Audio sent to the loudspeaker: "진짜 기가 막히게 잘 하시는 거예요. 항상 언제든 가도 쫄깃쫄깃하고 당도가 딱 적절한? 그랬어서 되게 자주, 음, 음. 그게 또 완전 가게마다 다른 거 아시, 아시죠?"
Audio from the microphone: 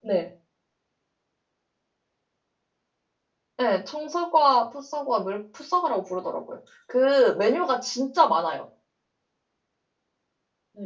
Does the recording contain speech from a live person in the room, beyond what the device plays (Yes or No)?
Yes